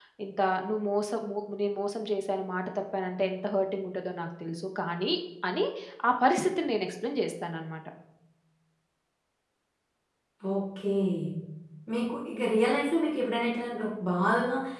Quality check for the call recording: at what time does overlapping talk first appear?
none

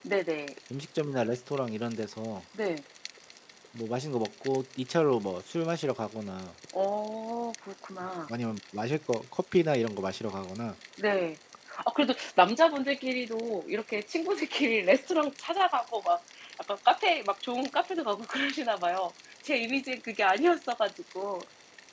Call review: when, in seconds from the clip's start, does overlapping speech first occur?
none

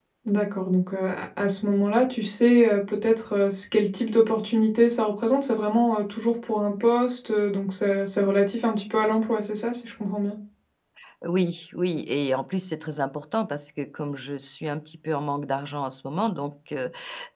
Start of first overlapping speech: none

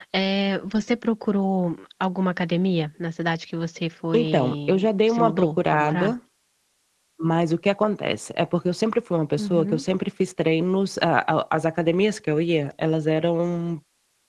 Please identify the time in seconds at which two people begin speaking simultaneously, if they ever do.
4.1 s

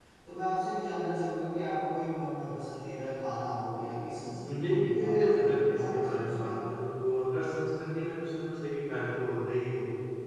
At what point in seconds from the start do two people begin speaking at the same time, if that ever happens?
4.3 s

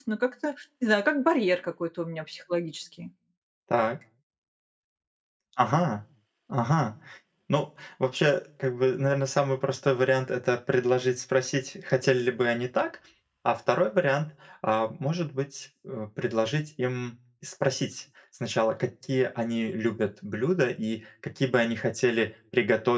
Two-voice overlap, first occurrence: none

